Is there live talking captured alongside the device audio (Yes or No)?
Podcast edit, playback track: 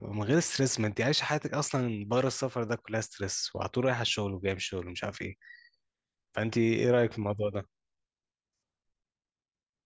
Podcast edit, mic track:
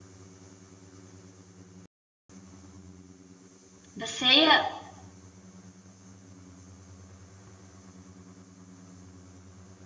Yes